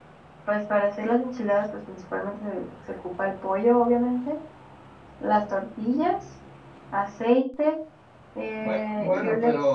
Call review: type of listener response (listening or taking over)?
taking over